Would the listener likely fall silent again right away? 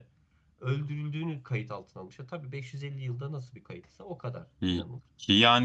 No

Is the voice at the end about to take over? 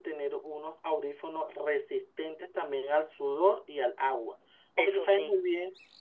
No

